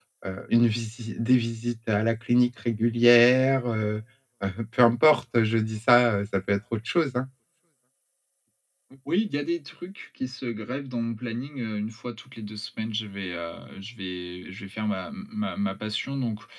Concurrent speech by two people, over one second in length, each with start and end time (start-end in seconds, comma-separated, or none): none